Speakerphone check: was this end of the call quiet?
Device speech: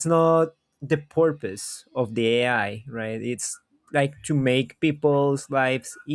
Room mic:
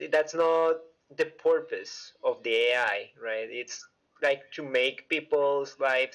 Yes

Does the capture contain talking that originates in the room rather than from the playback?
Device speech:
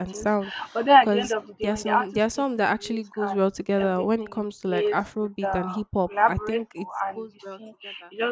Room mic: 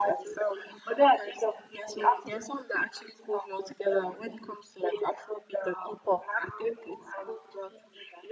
No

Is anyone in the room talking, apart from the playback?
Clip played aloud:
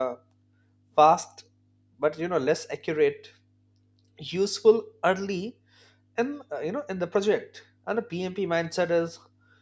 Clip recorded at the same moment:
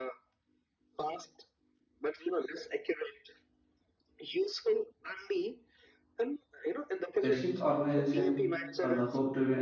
Yes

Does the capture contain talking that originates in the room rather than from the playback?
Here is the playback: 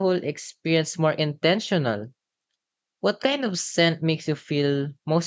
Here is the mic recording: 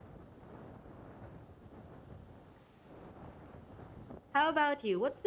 Yes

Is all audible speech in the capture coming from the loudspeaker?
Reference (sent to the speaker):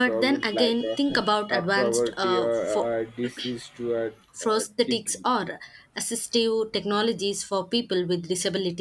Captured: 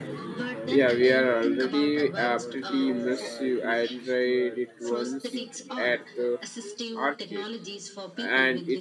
No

